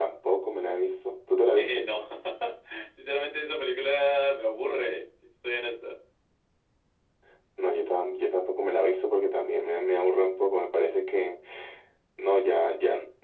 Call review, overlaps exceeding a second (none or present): none